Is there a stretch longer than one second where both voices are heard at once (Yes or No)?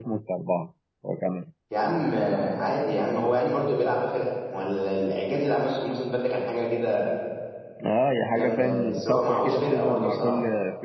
Yes